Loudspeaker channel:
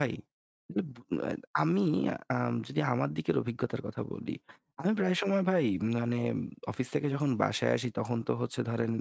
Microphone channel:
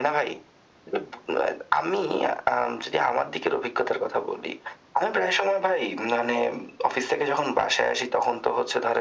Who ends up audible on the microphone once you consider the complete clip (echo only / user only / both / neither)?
echo only